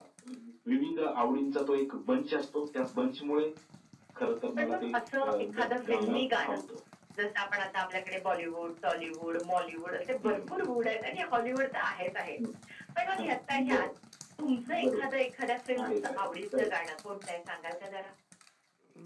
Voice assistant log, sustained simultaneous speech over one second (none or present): present